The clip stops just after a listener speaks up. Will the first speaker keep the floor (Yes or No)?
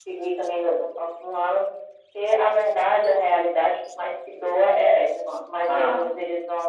Yes